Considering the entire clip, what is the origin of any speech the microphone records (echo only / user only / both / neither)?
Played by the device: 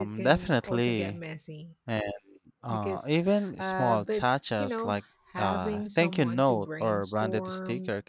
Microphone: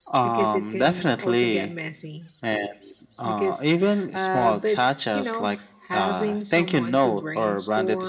echo only